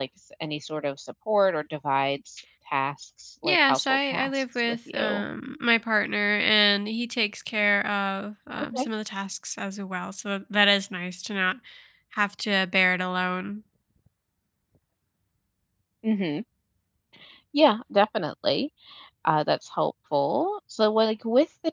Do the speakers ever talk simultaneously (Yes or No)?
Yes